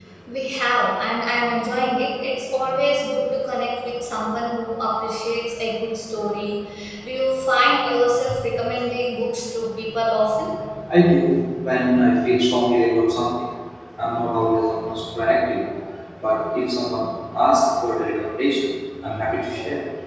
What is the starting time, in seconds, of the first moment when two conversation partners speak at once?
none

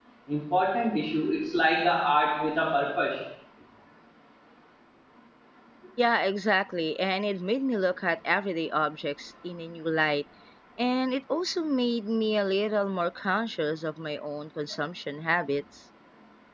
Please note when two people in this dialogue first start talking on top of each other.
none

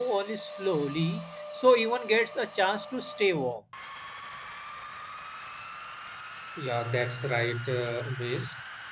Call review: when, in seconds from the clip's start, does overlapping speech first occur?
none

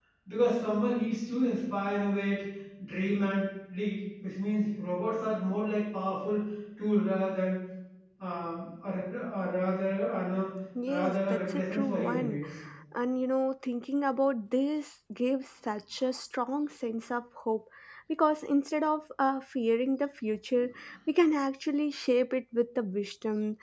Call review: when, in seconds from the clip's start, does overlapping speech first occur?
10.8 s

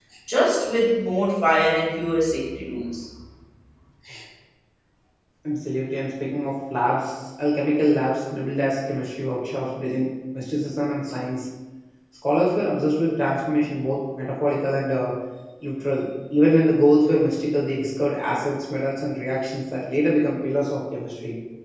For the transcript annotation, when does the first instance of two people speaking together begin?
none

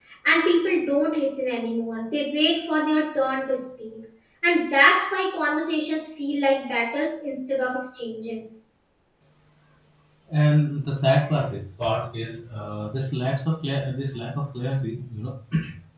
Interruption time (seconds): none

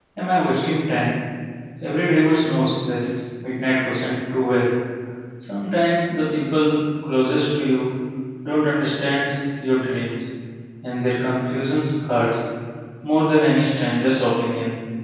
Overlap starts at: none

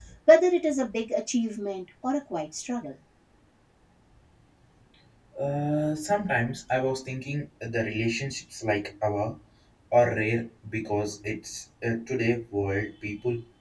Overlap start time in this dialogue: none

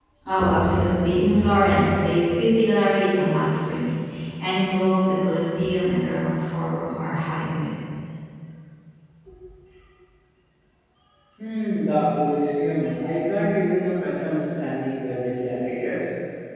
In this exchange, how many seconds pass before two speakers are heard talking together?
none

